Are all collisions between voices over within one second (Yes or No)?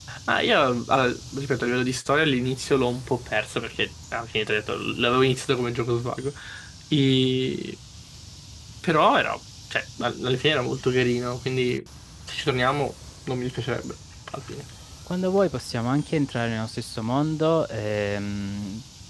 Yes